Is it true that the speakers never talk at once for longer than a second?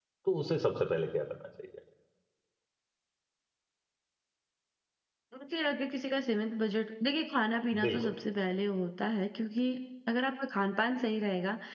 Yes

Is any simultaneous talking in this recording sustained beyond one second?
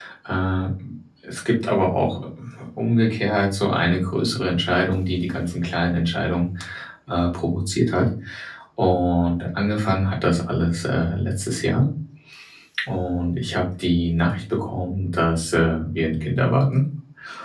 No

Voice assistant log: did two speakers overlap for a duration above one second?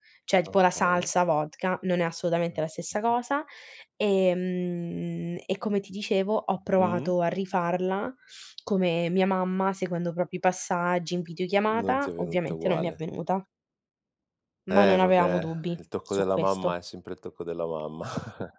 Yes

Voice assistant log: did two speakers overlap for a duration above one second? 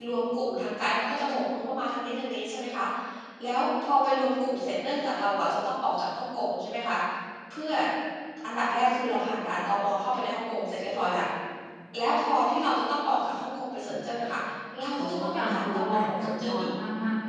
Yes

